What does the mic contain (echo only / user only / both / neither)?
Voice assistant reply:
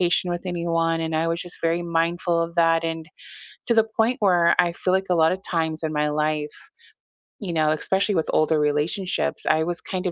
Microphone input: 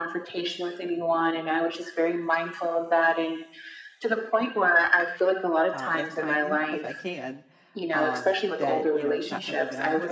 both